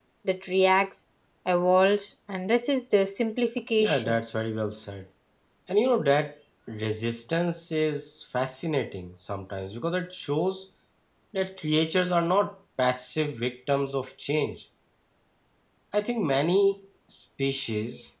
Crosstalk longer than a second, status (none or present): none